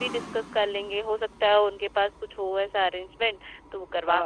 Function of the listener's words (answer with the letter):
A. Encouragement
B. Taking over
B